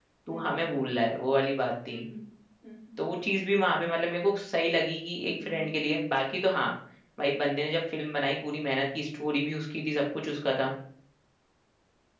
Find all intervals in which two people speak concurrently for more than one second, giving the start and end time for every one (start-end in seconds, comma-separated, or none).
none